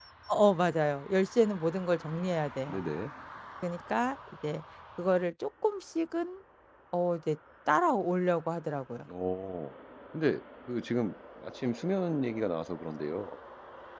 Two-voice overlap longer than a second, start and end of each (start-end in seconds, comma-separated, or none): none